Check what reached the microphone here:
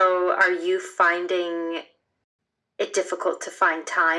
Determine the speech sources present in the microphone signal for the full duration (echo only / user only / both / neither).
echo only